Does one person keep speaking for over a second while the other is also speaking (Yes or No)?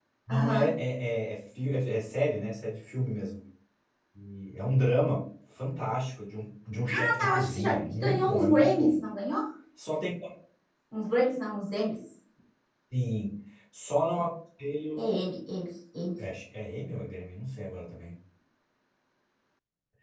Yes